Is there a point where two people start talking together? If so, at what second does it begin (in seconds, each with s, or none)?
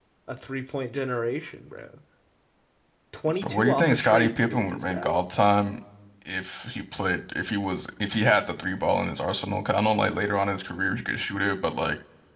3.4 s